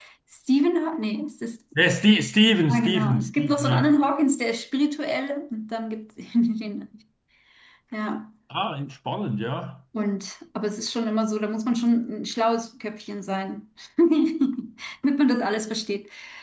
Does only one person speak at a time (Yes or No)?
No